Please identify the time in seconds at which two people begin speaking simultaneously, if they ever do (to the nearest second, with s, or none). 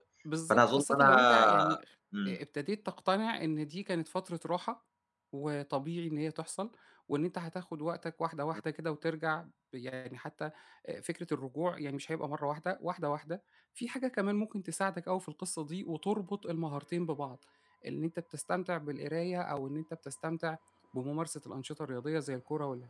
1 s